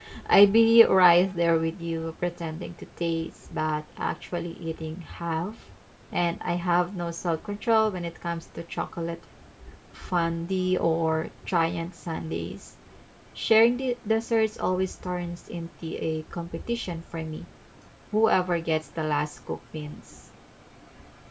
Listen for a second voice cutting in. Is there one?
No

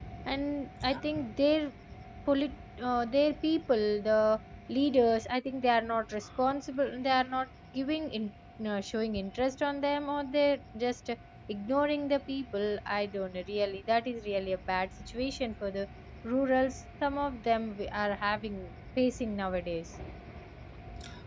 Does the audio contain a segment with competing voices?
No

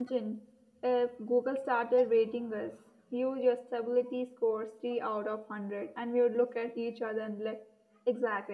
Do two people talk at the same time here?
No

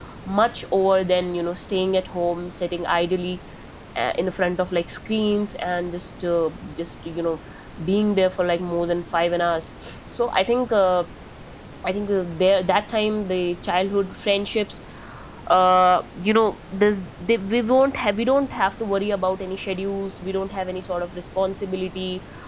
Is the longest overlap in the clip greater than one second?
No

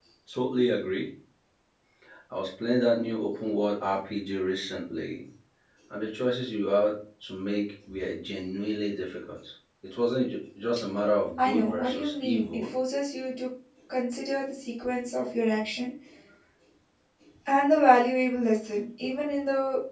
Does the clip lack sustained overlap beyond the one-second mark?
No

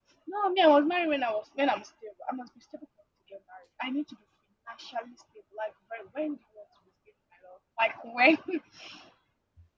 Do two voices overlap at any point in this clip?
No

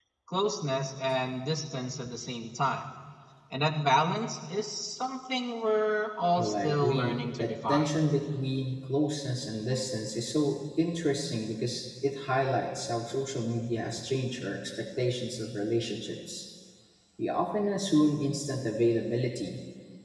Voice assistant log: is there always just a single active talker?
No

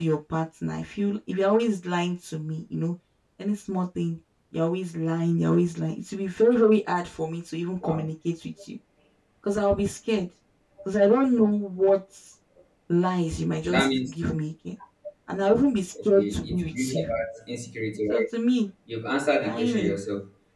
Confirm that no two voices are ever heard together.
No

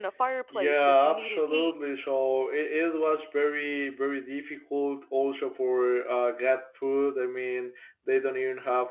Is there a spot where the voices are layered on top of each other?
Yes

